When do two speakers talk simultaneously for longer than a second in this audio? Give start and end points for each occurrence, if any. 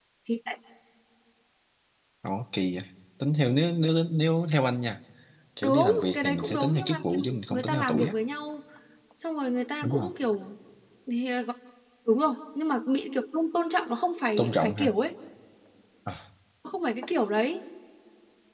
5.6-8.1

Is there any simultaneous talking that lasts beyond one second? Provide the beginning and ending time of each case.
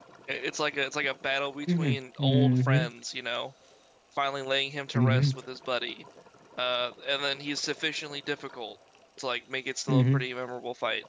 1.7-2.9

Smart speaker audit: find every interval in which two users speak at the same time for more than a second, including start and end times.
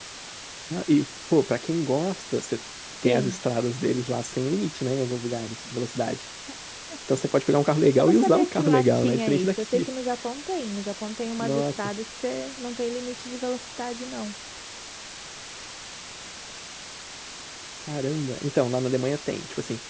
8.0-9.9

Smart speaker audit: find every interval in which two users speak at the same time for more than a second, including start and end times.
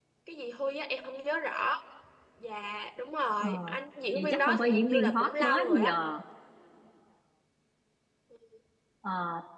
4.1-6.0

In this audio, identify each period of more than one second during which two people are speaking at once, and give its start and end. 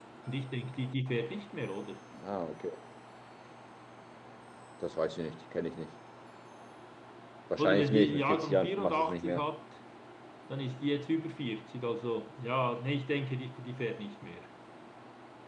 7.6-9.4

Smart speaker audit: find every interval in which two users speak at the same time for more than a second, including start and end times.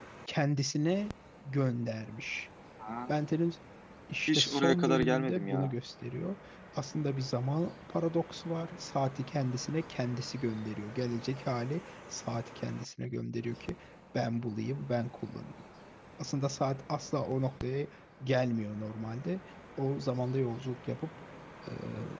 4.3-5.7

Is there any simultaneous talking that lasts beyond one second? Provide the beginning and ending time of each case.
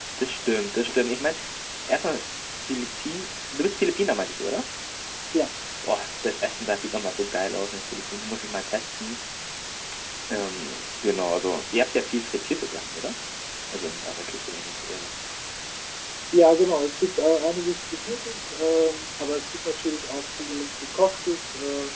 none

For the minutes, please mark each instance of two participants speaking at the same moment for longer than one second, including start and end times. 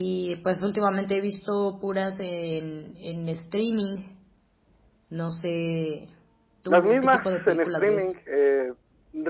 6.7-8.1

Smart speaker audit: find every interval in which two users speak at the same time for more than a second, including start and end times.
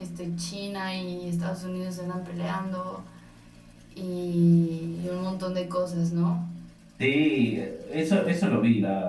none

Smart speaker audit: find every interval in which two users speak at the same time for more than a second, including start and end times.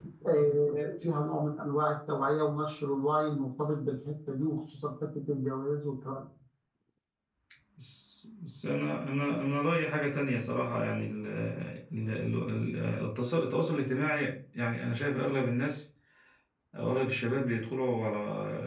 none

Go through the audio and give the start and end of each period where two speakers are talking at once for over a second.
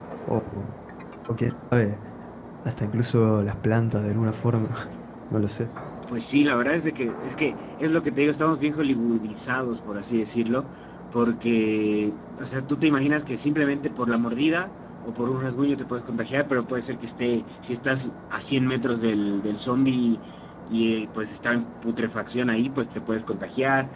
none

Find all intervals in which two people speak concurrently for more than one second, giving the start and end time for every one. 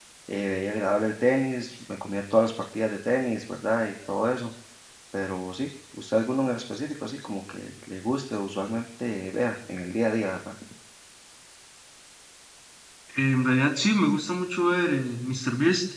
none

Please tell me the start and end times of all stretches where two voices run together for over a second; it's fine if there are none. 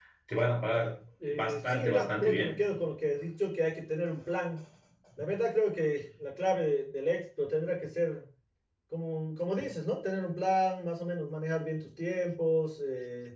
1.3-2.6

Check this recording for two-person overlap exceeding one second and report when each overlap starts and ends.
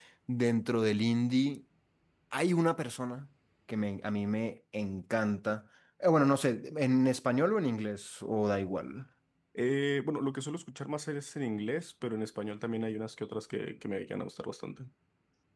none

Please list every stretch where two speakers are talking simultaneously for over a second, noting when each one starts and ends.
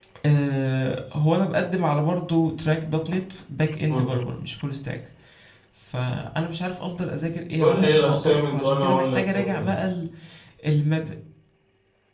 7.6-9.7

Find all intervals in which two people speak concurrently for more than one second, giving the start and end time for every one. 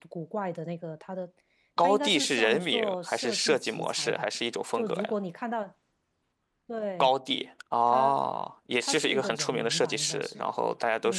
1.8-4.3, 8.8-10.4

